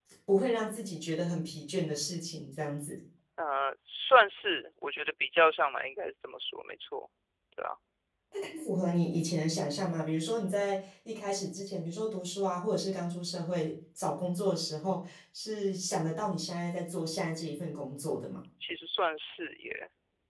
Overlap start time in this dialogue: none

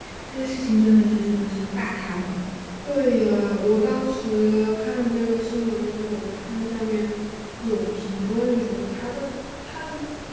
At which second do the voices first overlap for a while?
none

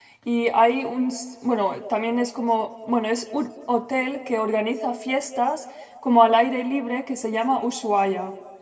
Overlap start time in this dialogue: none

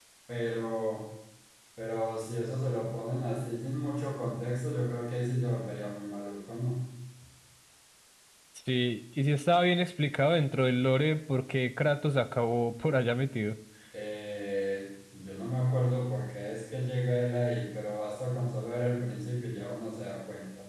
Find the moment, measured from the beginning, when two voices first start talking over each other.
none

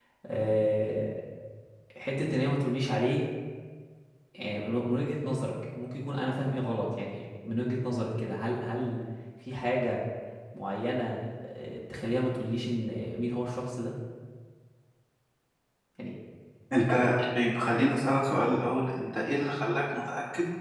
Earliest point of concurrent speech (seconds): none

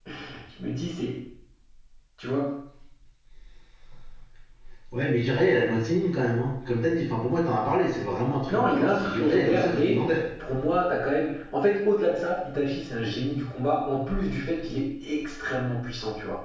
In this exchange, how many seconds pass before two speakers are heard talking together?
8.5 s

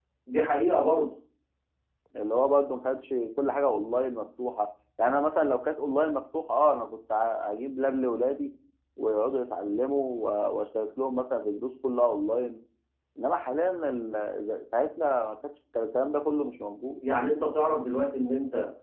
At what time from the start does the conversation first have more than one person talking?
none

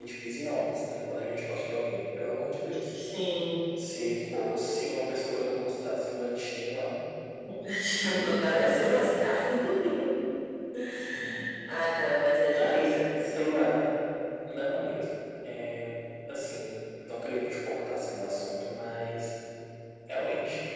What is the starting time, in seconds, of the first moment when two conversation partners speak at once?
8.1 s

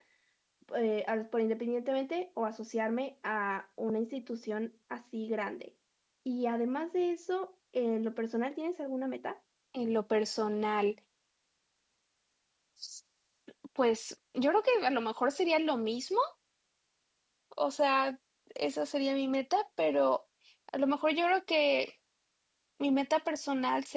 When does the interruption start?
none

